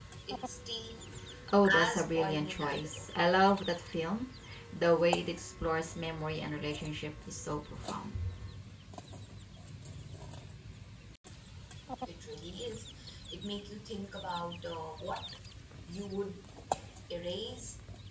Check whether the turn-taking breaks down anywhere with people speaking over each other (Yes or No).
Yes